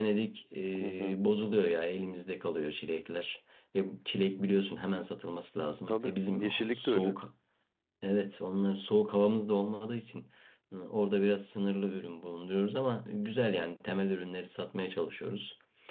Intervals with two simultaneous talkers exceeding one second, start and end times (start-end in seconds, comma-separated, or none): 5.9-7.2